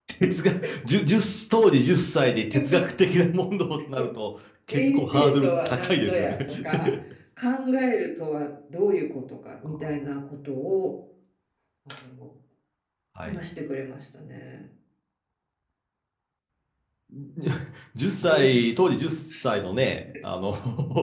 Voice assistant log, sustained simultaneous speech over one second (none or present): present